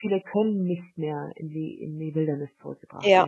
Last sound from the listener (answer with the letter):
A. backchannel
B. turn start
A